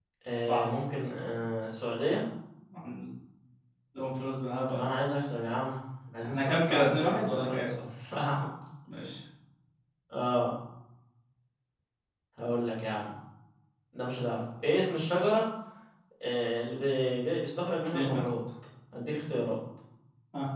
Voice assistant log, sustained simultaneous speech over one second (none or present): present